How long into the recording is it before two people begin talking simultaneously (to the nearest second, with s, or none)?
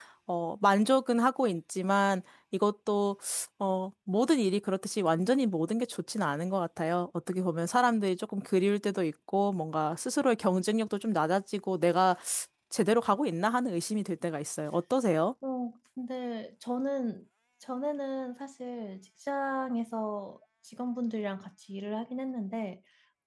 none